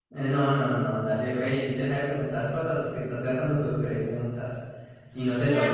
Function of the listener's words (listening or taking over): taking over